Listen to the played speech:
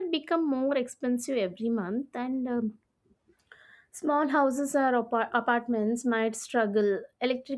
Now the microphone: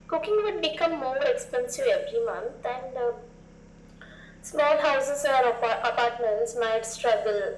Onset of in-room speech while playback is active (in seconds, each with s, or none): none